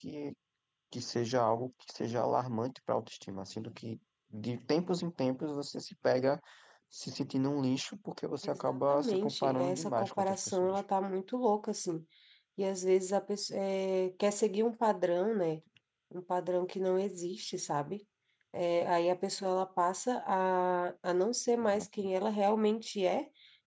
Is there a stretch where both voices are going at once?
Yes, from 8.4 s

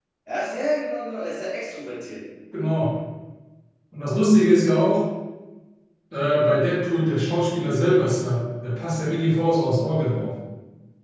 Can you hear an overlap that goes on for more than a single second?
No

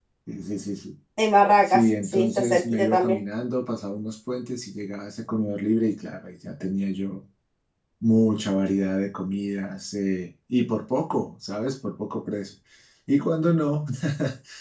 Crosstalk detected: Yes, from 1.6 s

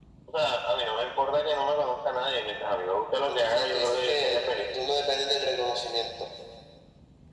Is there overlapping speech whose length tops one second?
Yes, from 3.3 s

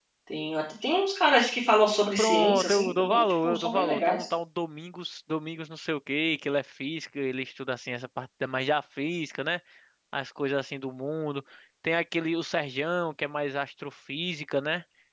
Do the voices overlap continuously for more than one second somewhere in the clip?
Yes, from 2.2 s

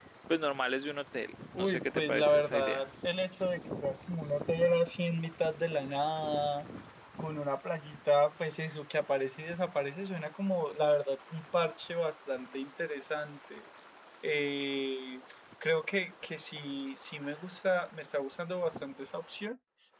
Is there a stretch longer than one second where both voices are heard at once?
Yes, from 1.5 s

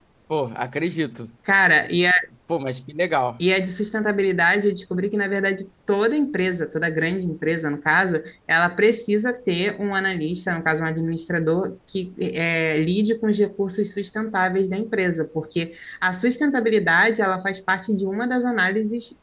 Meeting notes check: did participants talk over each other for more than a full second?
No

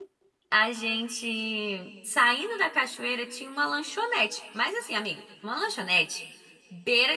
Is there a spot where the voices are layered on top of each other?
No

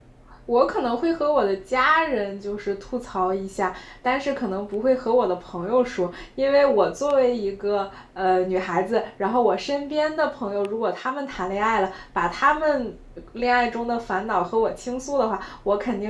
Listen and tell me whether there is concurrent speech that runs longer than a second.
No

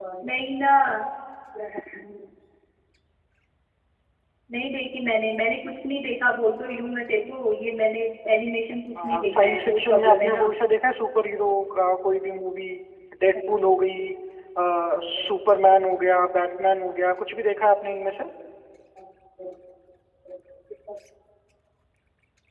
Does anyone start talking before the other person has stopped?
Yes, from 9.2 s

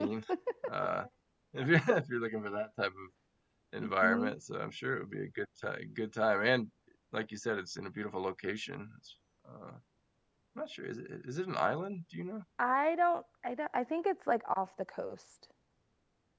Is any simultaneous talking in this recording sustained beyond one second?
No

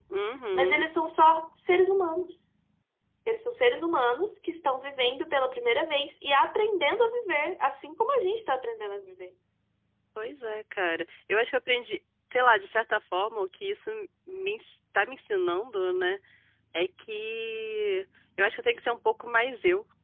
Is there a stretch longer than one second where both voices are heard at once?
No

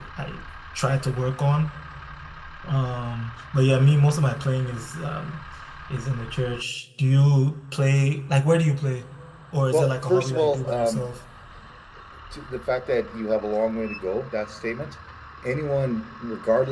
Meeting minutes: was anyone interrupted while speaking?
Yes, from 9.7 s

